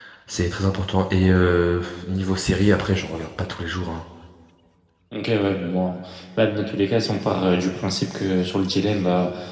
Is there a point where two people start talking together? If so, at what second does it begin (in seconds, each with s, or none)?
none